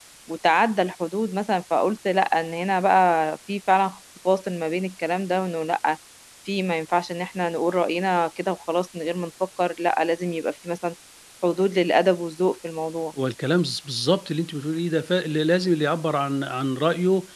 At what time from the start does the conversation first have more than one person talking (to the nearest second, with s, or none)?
none